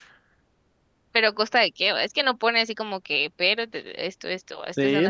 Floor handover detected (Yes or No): Yes